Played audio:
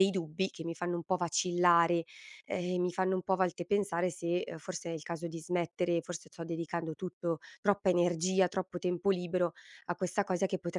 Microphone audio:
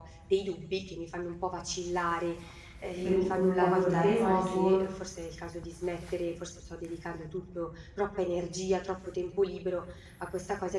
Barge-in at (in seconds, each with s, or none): 3.0 s